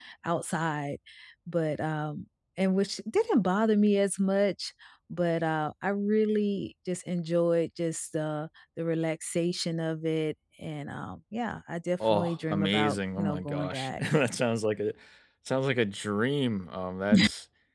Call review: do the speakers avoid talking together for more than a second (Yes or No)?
No